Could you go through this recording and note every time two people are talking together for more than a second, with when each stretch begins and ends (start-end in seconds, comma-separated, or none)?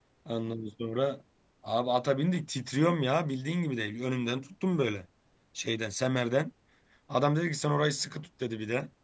none